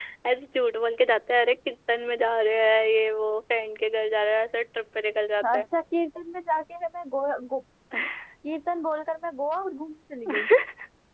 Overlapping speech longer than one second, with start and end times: none

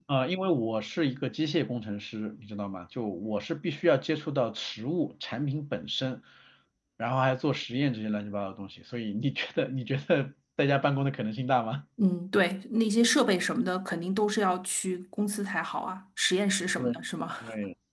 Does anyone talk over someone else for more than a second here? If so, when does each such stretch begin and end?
none

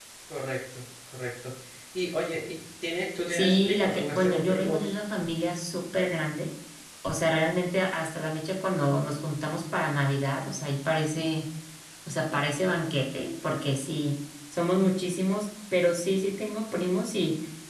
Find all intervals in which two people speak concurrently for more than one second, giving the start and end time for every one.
3.3-4.9

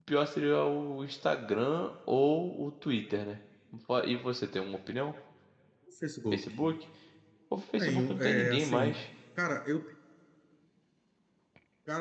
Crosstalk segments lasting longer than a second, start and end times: 7.5-9.0

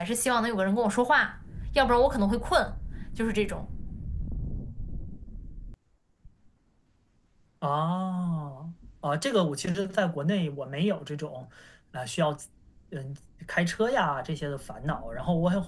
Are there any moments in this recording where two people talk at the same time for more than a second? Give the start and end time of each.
none

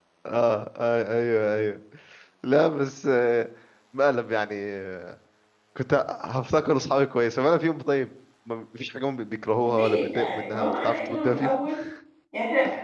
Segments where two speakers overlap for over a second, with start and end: 9.7-11.5

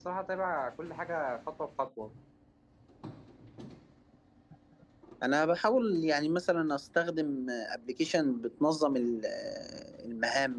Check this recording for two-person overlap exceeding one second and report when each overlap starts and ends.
none

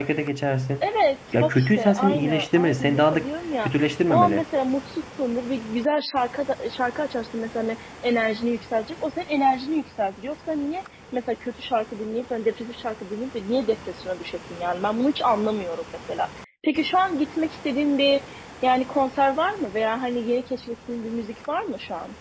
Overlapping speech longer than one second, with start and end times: 1.4-3.2

